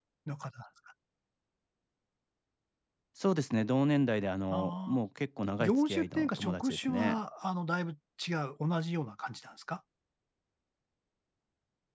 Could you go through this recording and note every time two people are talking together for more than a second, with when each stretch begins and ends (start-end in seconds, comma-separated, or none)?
5.6-7.2